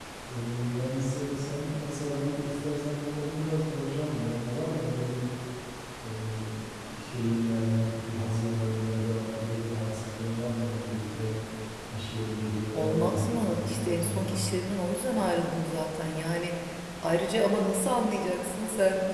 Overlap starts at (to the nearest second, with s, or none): 13 s